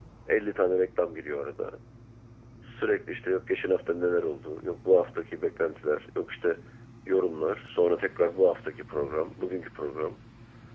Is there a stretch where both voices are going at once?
No

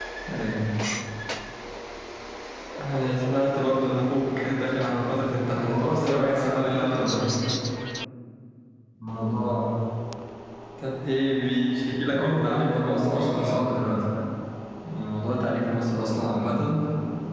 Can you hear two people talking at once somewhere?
Yes, from 5.5 s

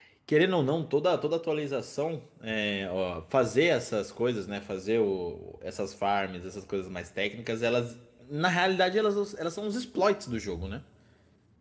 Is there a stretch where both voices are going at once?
No

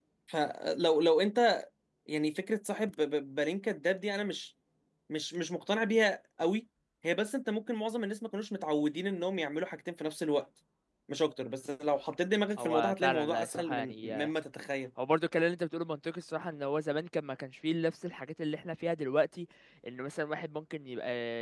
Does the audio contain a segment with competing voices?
Yes, from 12.6 s

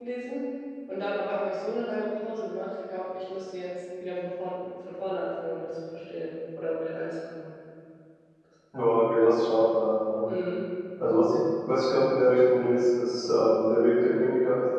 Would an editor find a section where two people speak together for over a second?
No

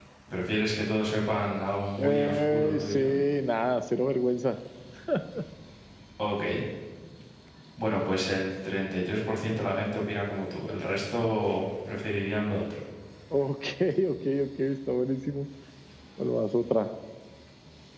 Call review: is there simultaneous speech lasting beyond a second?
Yes, from 2.0 s

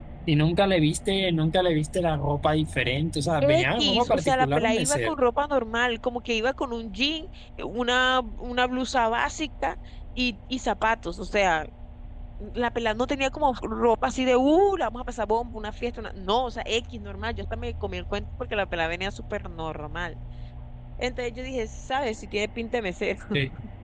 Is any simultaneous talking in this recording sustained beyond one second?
Yes, from 3.4 s

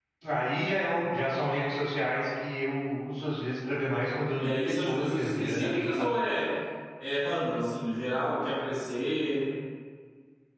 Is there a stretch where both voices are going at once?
Yes, from 4.4 s

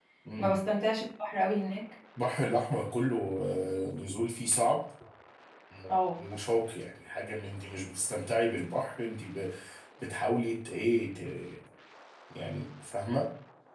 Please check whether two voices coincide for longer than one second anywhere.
No

